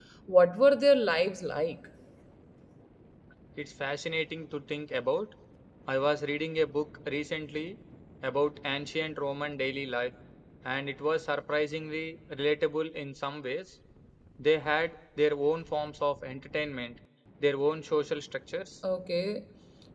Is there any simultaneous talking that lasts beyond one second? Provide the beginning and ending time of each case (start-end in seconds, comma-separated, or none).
none